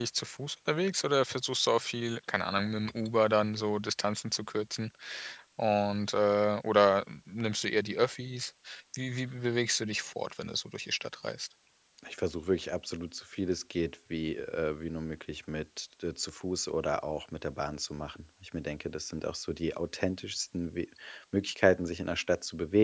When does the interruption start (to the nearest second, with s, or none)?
none